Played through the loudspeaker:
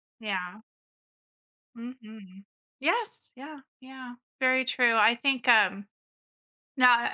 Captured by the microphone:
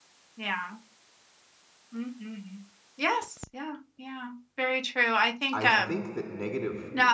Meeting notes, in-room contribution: present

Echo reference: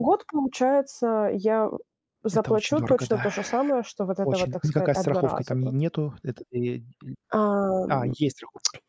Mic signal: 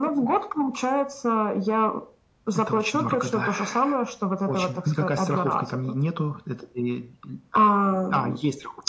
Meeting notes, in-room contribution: none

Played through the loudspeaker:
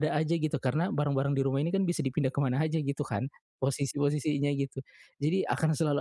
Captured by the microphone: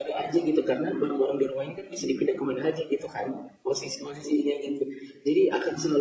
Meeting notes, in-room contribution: none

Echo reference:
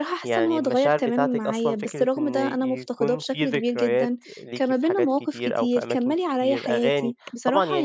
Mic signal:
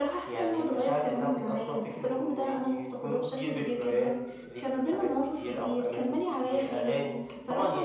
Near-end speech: present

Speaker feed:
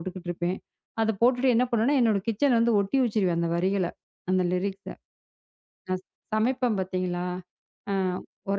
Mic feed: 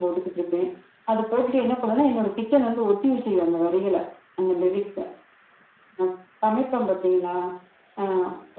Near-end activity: none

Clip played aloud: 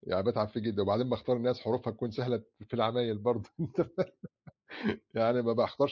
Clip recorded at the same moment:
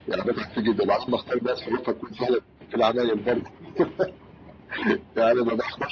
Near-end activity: none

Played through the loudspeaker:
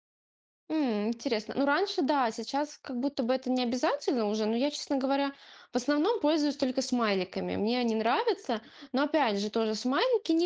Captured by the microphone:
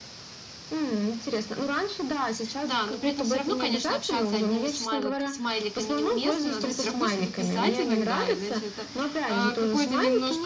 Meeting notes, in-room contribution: present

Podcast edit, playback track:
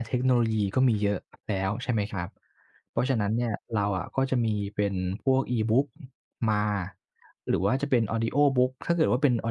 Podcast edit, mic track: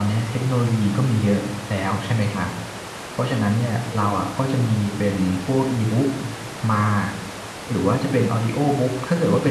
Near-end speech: none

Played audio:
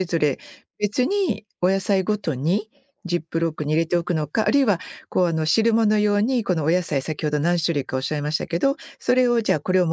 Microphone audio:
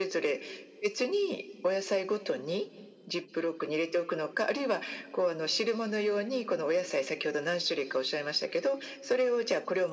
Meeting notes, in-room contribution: none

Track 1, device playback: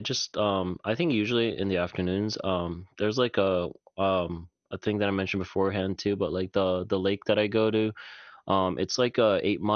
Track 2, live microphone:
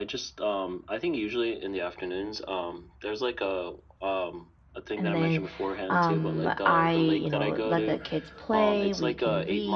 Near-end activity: present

